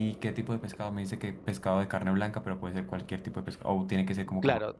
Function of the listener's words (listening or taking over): taking over